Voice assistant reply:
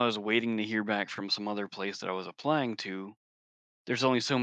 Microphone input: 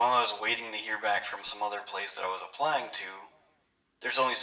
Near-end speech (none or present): none